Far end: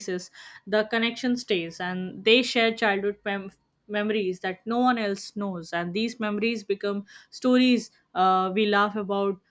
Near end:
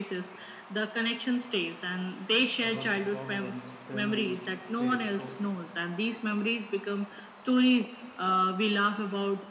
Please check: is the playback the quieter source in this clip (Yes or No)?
No